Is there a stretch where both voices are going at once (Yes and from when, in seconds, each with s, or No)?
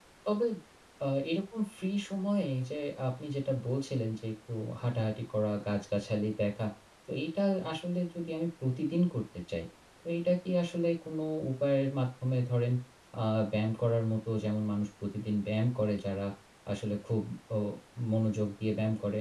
No